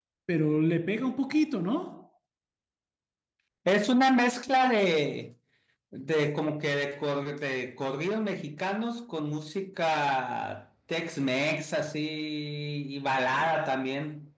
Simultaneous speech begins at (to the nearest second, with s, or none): none